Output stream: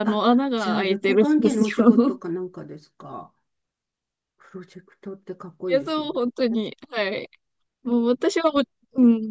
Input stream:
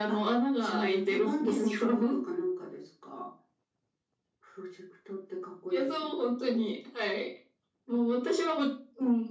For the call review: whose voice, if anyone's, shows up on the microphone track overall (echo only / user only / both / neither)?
echo only